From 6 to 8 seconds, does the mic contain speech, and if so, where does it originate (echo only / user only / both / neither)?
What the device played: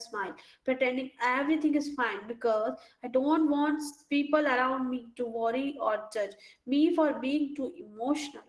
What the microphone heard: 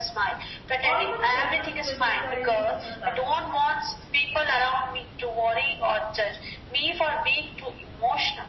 echo only